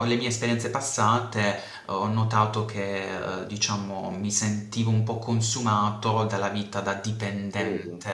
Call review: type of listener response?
listening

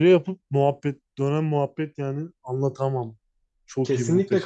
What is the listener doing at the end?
taking over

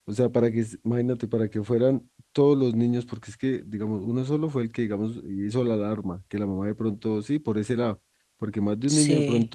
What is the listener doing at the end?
listening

